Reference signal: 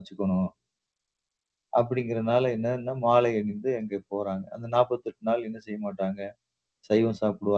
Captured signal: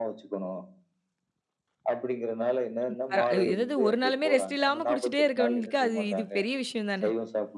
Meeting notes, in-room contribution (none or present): present